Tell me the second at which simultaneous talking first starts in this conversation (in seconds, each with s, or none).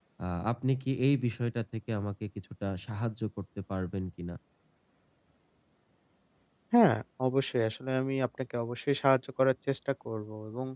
none